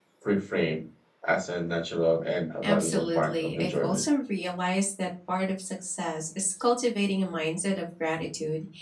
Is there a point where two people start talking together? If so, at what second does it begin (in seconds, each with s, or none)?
2.6 s